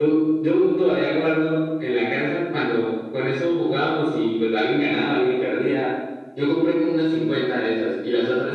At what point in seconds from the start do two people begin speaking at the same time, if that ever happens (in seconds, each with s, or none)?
none